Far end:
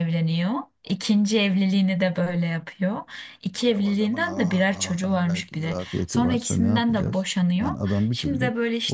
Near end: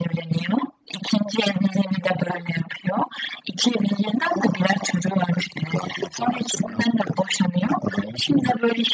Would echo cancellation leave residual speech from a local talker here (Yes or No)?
No